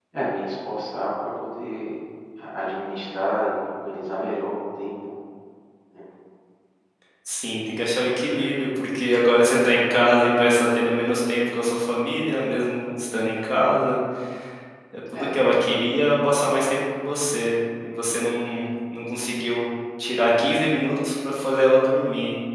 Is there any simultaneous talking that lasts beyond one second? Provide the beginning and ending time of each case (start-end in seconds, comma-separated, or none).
none